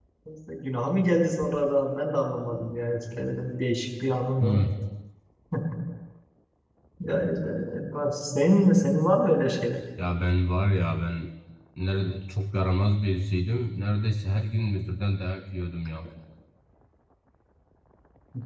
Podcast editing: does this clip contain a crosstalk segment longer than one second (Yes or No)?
No